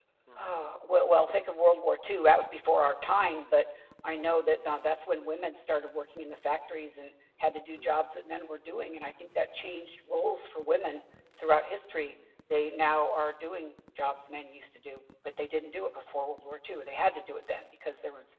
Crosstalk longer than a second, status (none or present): none